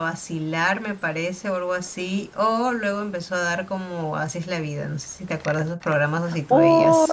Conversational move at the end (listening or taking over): taking over